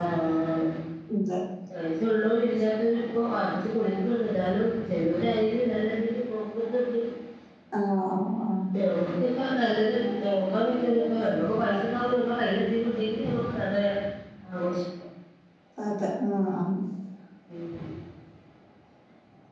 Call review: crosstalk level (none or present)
none